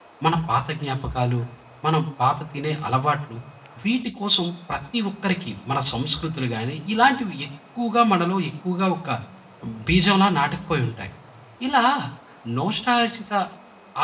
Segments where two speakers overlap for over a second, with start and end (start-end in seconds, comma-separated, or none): none